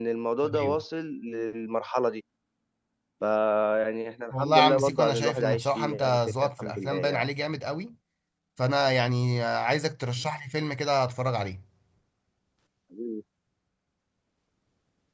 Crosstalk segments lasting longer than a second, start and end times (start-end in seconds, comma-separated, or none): 4.3-7.2